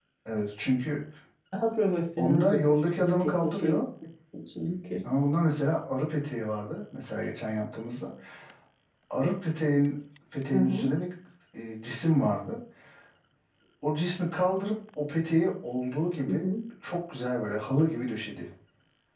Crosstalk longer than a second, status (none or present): present